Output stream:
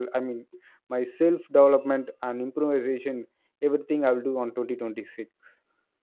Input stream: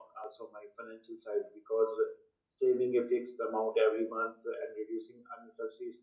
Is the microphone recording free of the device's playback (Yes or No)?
Yes